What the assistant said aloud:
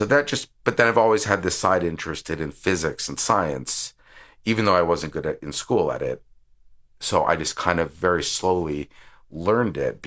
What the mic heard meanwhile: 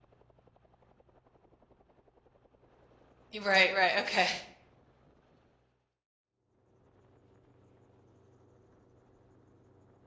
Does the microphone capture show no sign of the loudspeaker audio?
Yes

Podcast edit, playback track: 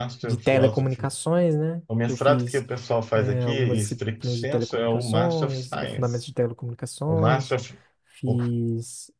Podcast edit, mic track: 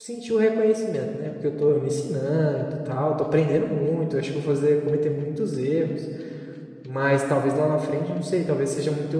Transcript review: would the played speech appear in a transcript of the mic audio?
No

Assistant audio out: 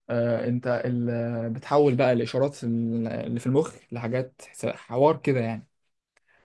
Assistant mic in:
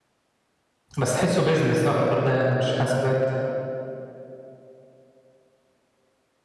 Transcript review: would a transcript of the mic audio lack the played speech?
Yes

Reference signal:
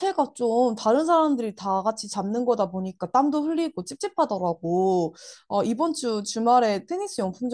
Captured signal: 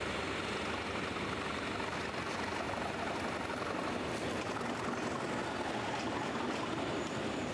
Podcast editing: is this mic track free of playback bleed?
Yes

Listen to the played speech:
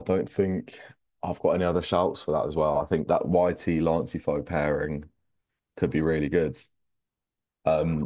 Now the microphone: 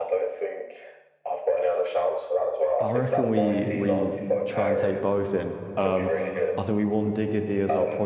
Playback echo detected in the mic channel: Yes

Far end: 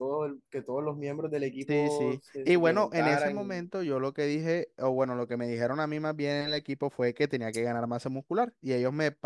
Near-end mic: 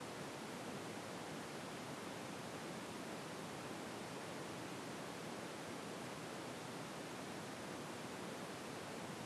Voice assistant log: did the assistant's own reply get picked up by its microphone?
No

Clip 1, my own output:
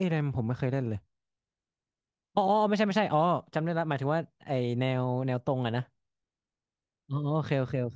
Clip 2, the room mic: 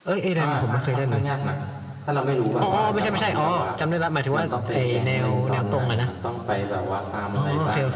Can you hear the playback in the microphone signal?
Yes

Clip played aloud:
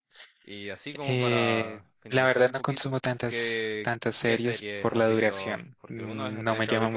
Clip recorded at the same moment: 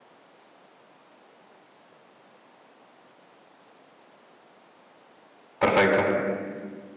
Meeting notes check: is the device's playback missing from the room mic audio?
Yes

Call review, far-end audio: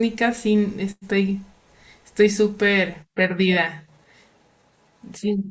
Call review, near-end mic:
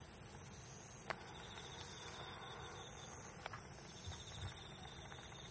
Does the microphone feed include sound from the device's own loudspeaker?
No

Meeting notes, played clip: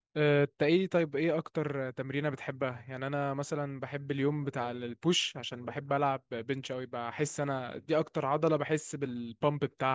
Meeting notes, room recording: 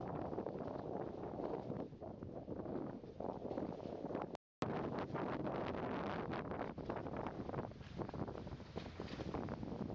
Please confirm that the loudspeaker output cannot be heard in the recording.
Yes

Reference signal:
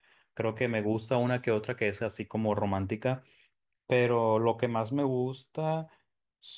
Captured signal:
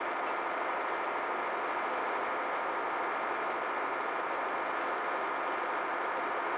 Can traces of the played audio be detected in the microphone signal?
No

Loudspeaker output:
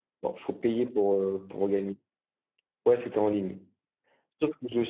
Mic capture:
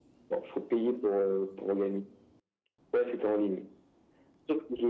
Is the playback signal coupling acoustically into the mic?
Yes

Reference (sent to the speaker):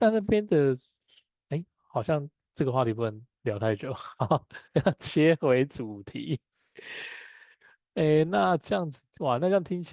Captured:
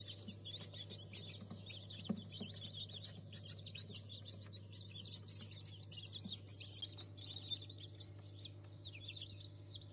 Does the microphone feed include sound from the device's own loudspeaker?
No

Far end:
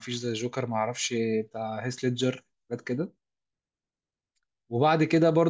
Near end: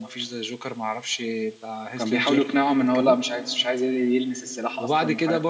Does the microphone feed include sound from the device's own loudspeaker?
Yes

